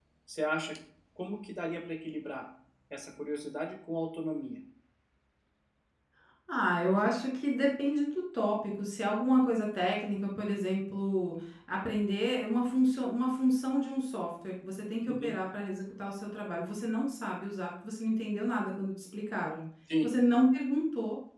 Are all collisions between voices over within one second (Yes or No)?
Yes